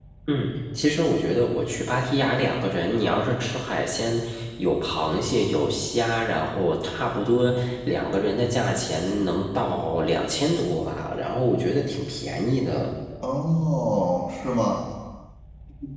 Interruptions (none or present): none